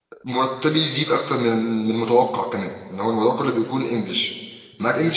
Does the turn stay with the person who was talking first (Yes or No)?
Yes